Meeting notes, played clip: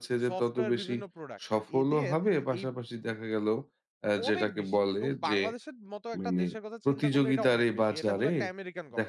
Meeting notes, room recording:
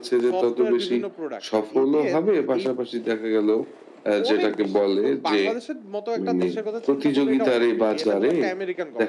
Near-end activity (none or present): none